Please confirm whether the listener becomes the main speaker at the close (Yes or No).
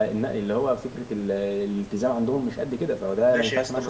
Yes